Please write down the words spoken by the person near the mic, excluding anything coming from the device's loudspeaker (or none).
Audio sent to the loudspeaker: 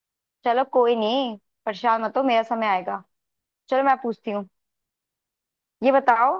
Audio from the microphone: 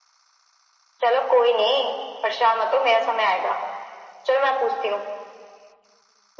none